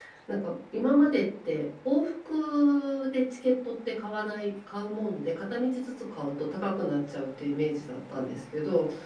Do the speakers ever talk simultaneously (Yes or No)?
No